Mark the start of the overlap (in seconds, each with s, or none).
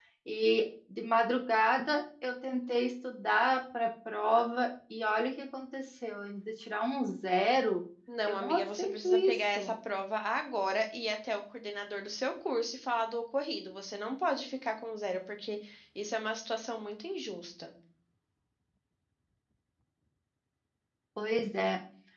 8.3 s